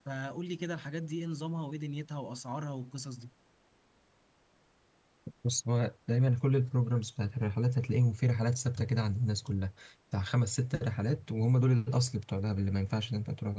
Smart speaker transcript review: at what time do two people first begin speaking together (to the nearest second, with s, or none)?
none